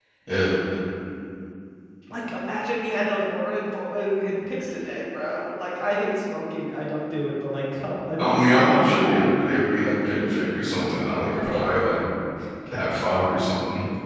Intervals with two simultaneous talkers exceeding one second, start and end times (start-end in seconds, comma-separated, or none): 8.2-9.5